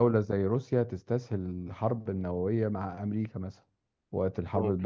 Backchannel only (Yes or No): Yes